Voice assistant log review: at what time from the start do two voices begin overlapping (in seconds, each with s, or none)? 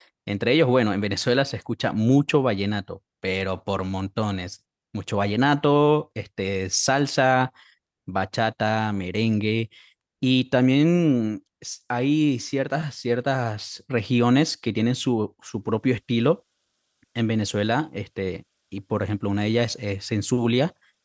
none